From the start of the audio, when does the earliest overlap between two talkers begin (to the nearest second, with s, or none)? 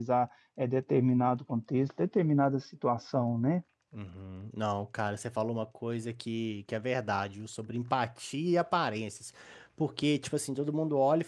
none